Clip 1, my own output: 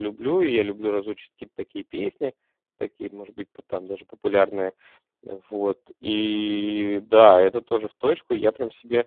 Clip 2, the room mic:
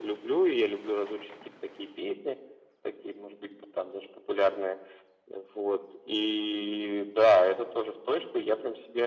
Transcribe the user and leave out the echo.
none

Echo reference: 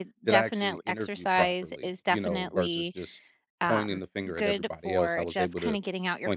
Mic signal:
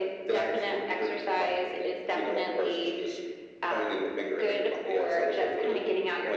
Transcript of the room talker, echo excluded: none

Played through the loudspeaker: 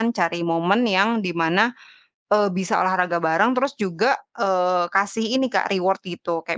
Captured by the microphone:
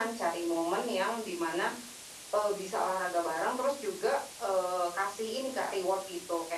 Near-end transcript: none

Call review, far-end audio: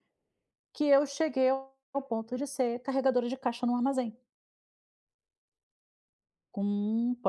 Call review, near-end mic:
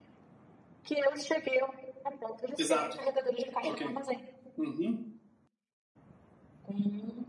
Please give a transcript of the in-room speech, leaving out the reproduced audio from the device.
Exato. Ok. Uhum,

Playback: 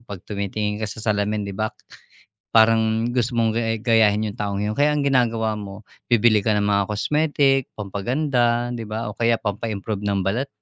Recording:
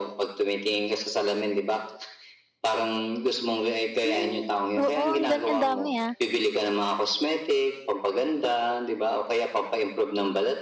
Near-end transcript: Hmm. Oo, ang gal ang dami, ah.

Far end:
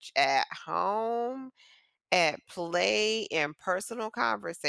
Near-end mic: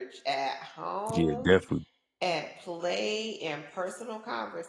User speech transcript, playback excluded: Yeah, definitely.

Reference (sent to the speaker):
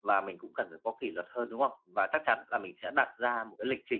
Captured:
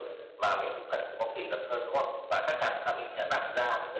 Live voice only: none

